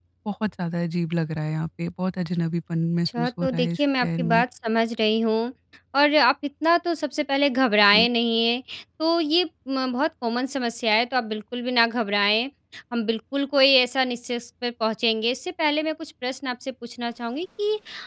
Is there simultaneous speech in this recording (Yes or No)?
Yes